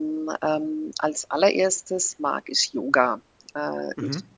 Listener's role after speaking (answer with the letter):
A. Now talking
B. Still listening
B